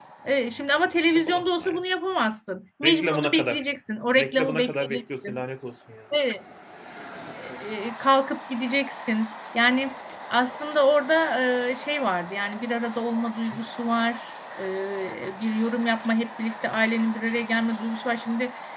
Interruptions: present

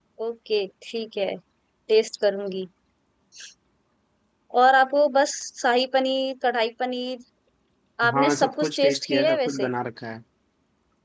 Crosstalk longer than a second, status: present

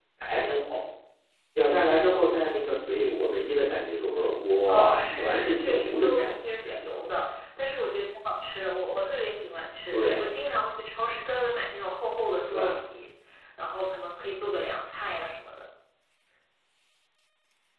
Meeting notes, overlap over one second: present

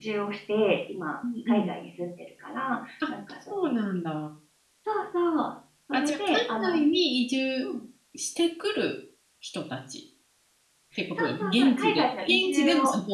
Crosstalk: present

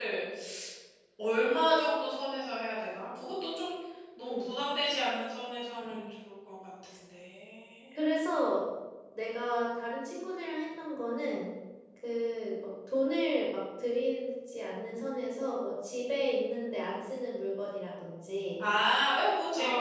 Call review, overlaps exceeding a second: none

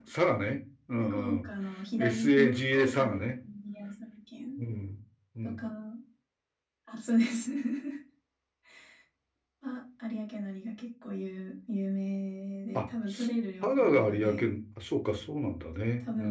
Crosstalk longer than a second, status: present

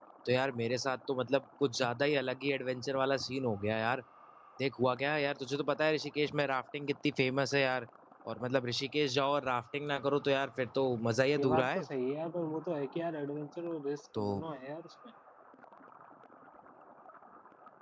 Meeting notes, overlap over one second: none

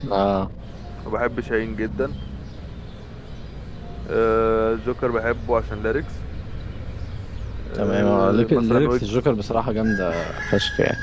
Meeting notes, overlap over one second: present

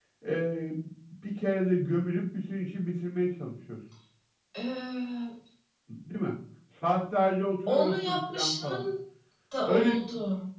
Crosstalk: present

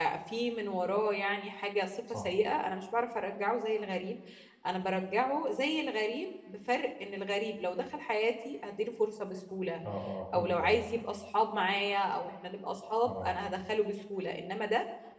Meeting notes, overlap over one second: none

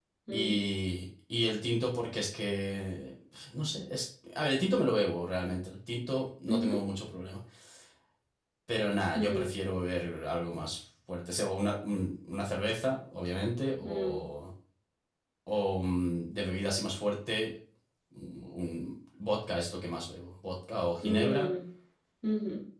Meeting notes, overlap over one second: none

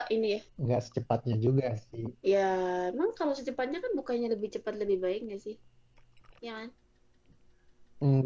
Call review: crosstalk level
none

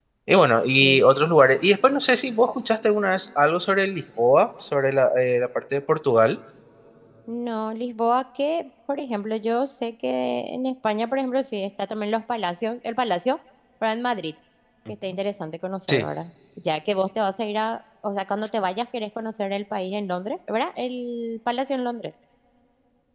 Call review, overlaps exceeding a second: none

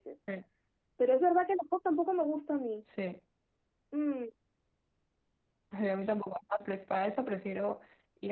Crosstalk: none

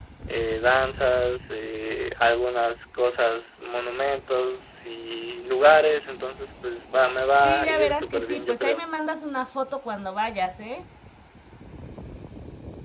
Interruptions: present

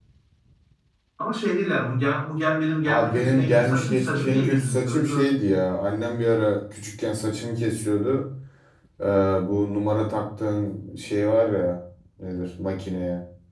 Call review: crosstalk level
present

